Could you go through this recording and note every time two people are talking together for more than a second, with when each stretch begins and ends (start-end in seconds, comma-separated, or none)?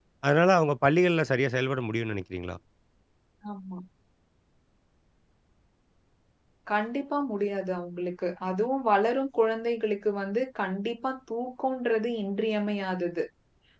none